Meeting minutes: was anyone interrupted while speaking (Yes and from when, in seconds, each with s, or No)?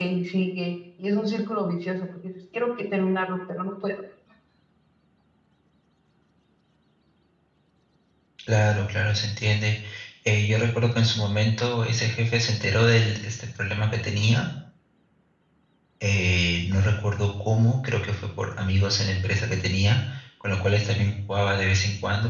No